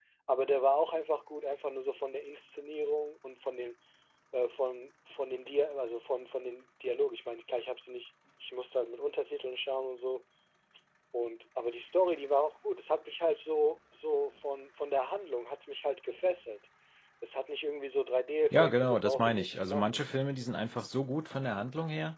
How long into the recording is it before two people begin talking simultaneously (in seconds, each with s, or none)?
18.5 s